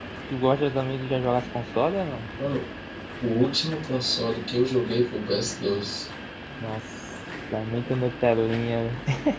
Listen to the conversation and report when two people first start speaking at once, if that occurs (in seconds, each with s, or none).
none